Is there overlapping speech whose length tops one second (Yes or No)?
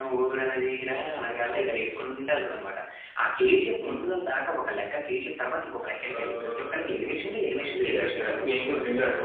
Yes